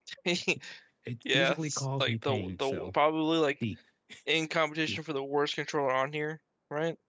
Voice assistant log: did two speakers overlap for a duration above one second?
Yes, from 1.3 s

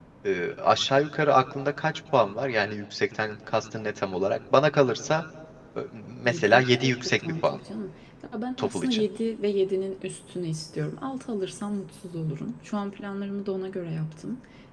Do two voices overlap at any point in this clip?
Yes, from 6.2 s

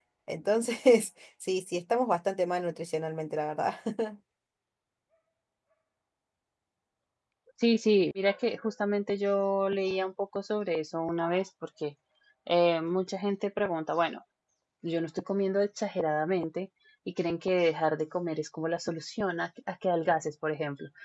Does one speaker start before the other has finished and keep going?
No

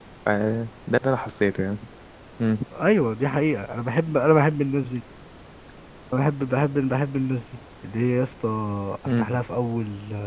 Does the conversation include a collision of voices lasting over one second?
No

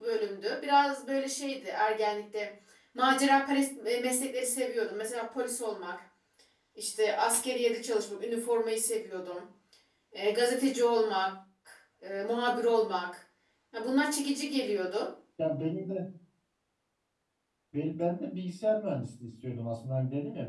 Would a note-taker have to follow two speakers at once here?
No

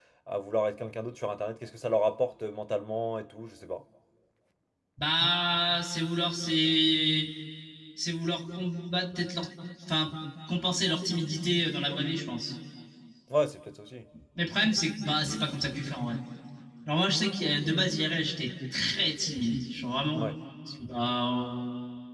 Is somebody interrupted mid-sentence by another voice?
No

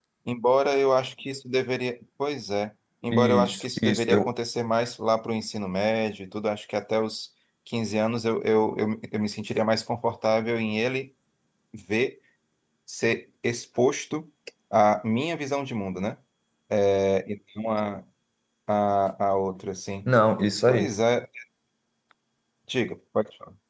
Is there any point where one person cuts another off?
Yes, from 3.1 s

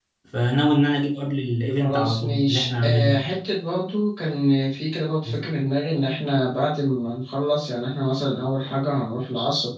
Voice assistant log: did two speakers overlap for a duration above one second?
Yes, from 1.8 s

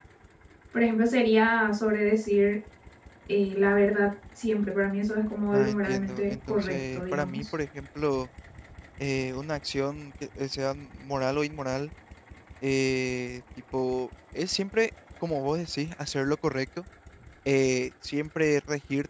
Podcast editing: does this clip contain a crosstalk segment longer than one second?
Yes, from 5.5 s

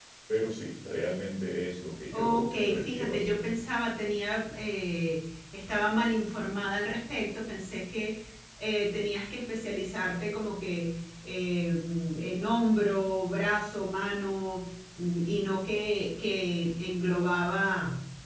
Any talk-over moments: Yes, from 2.1 s

